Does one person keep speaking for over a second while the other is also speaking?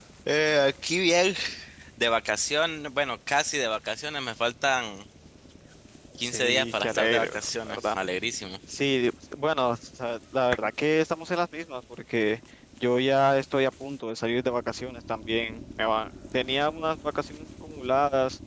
Yes, from 6.2 s

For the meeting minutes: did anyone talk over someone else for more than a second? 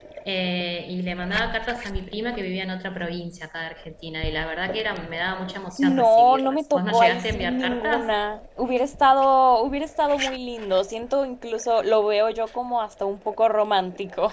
Yes, from 5.8 s

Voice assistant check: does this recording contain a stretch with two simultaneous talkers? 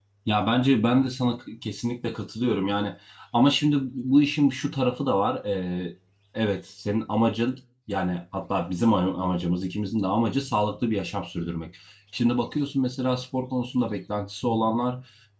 No

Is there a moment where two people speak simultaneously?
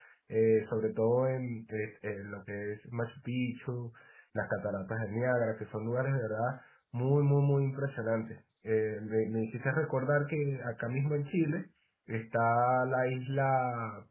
No

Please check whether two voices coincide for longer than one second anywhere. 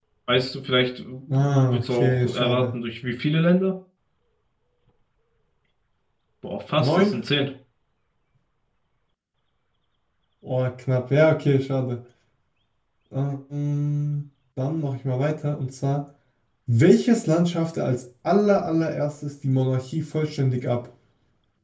Yes, from 1.4 s

